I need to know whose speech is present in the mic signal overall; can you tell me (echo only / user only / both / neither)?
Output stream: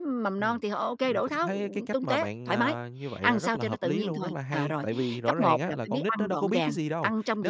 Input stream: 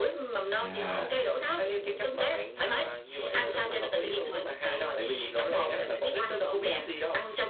both